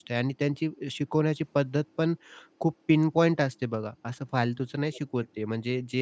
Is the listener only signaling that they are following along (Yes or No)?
Yes